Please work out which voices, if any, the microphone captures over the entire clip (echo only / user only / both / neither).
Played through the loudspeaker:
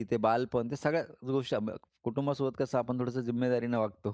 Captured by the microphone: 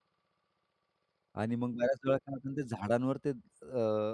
user only